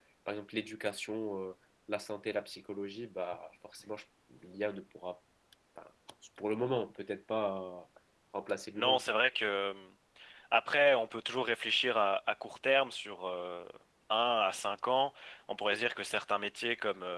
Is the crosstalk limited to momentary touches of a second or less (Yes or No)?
Yes